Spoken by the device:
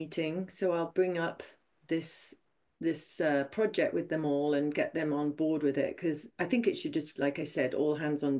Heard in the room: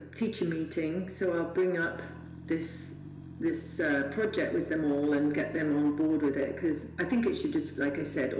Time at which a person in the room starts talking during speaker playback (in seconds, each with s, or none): none